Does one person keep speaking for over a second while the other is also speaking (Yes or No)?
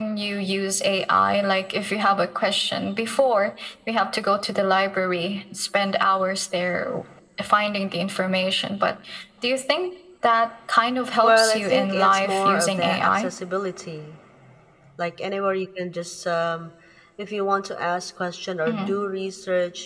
Yes